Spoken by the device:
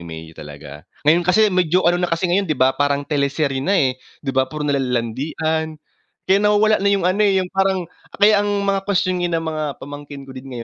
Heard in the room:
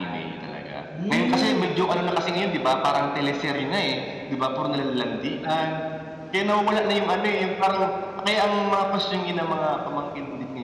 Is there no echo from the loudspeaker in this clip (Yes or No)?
No